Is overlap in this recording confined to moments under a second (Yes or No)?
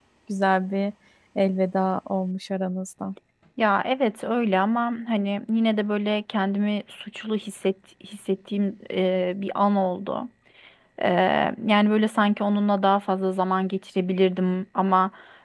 Yes